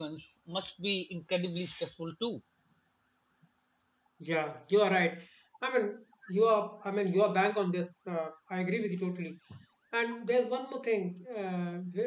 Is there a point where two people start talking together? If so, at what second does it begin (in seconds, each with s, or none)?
none